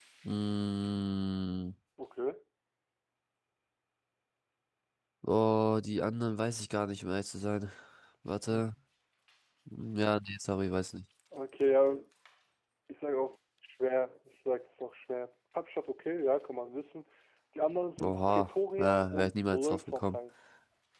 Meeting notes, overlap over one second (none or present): present